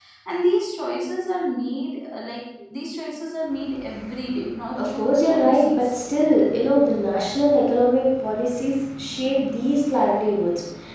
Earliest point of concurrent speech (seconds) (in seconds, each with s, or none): 4.8 s